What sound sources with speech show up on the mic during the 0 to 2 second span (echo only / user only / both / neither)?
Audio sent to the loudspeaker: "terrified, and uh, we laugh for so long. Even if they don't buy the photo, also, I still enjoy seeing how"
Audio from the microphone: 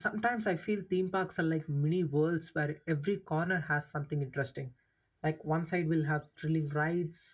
user only